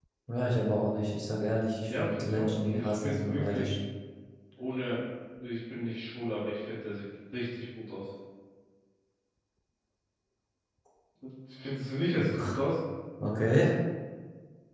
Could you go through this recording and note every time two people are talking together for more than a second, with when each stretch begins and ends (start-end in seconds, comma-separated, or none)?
1.8-3.7